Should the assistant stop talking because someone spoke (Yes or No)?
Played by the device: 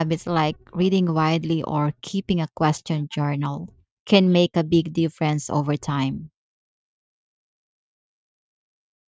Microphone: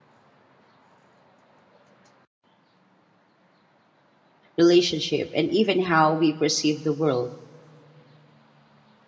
Yes